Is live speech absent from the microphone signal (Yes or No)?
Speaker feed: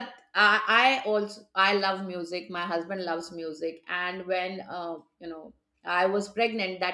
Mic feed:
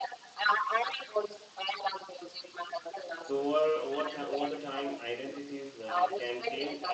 No